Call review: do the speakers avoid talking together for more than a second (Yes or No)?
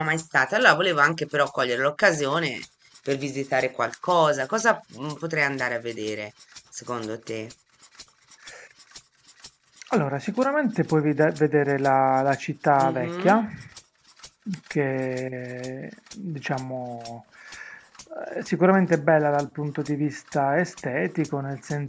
Yes